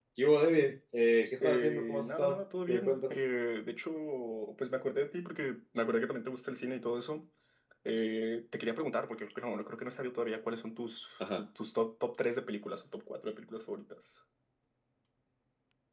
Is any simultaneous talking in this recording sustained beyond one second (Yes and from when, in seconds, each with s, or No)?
Yes, from 1.4 s